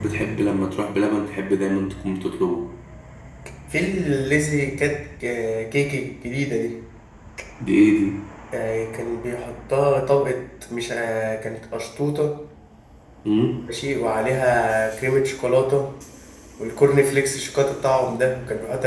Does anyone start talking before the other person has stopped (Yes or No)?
No